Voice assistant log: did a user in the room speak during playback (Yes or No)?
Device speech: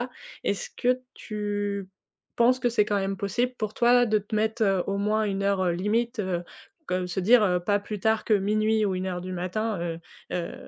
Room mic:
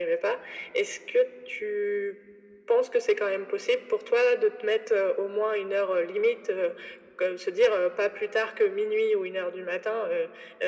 No